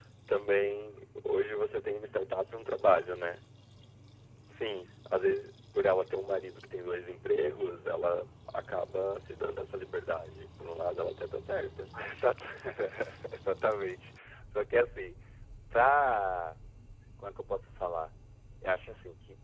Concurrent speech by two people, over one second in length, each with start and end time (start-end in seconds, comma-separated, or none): none